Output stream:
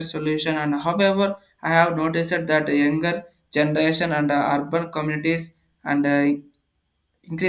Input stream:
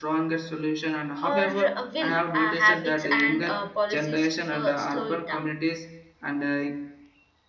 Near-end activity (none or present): present